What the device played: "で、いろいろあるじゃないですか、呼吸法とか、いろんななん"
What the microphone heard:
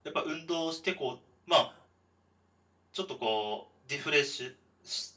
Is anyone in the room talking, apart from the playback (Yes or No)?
Yes